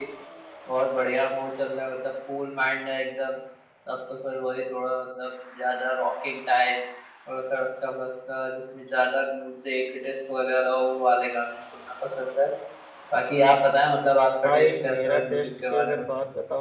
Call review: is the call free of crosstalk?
No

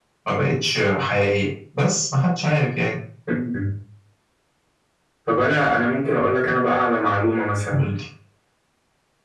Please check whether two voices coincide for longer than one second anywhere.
No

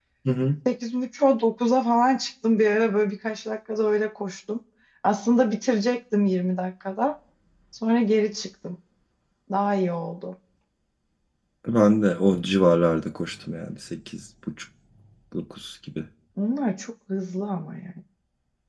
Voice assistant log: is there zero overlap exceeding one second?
Yes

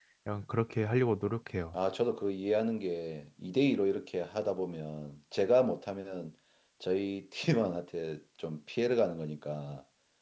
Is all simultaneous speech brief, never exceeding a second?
Yes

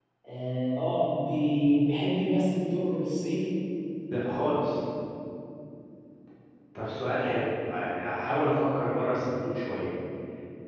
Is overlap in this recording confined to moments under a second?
Yes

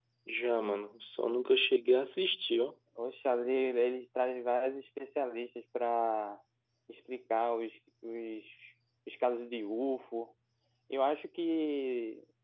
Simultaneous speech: No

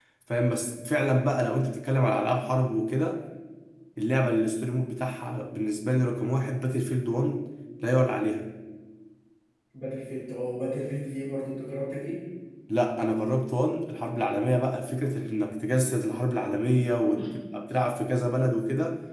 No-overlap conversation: Yes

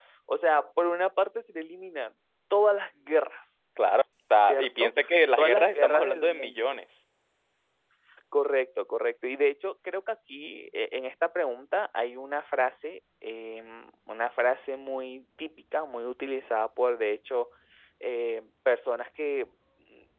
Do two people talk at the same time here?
Yes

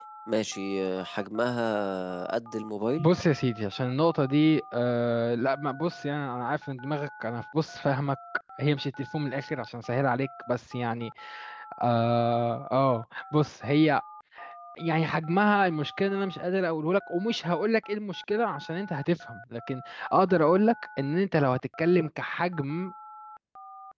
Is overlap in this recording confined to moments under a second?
Yes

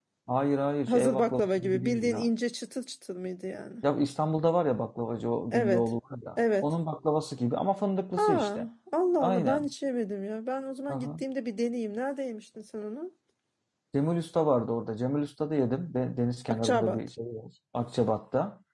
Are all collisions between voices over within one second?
No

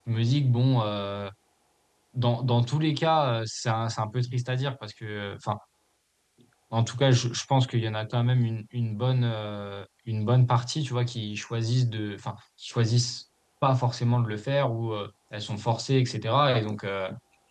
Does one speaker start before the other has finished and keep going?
No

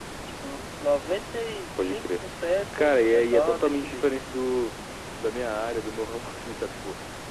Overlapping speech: Yes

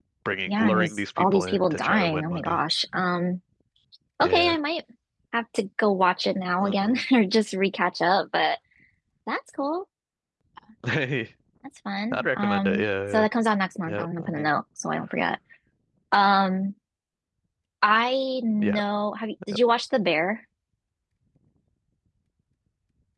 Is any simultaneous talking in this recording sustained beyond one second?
Yes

